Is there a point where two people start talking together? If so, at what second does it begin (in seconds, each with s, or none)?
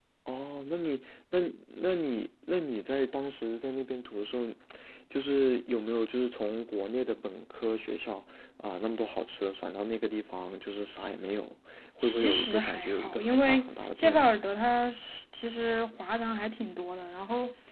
12.0 s